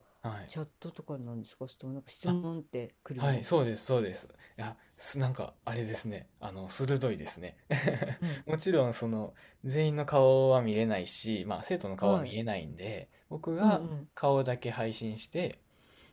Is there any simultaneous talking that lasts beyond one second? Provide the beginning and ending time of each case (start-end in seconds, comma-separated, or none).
none